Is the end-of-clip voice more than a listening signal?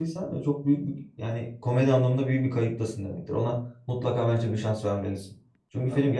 No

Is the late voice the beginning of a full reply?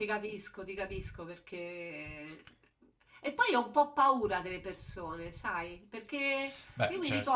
No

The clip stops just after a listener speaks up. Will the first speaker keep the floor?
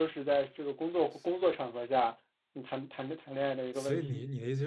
No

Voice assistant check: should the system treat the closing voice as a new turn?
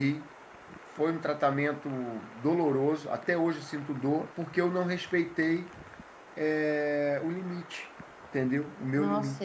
Yes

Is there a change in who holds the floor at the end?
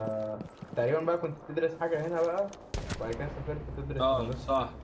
Yes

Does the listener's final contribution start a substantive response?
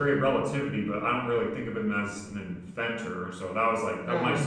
No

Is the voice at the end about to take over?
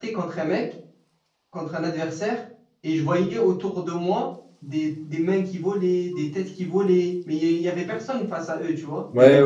Yes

